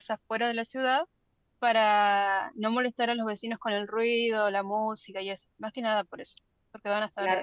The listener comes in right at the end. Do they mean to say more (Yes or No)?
Yes